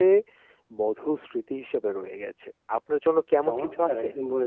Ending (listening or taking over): taking over